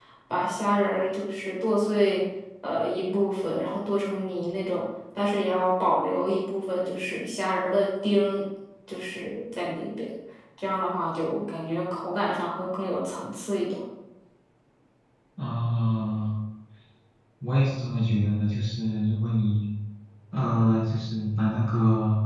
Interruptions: none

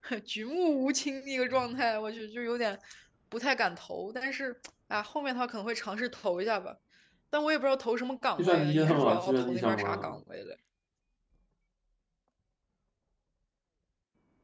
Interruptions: present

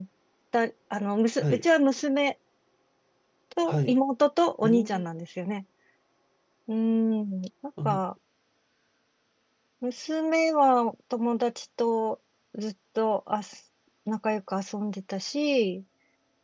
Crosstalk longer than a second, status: none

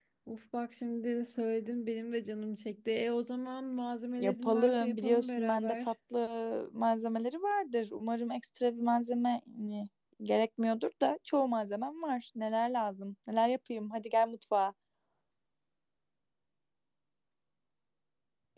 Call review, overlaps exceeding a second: present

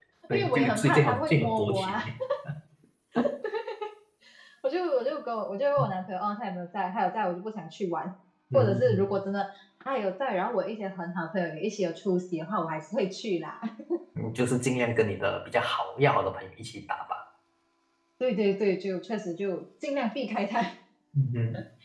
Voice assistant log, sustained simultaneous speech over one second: present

